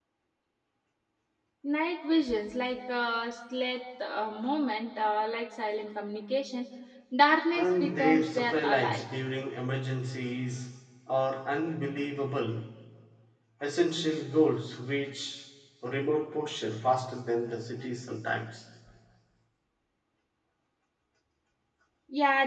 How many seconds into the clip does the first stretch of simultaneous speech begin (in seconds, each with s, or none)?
7.5 s